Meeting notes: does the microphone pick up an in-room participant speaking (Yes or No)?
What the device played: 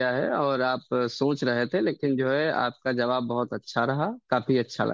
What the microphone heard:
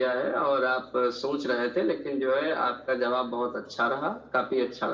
No